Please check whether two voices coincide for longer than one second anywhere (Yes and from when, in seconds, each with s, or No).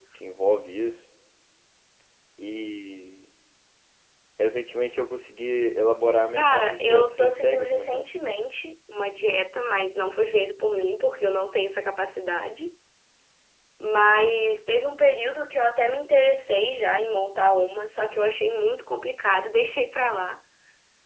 Yes, from 6.4 s